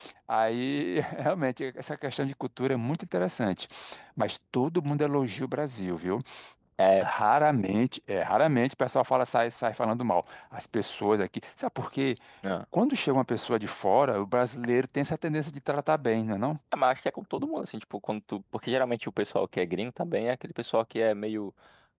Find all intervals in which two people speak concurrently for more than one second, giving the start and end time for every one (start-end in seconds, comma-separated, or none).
none